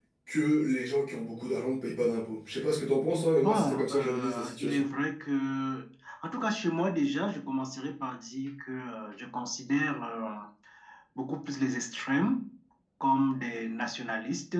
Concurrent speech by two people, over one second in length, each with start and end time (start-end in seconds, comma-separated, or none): 3.3-4.8